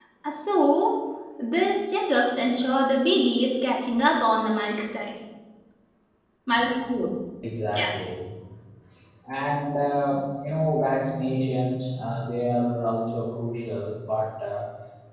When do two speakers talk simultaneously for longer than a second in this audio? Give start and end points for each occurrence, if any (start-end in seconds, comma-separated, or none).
none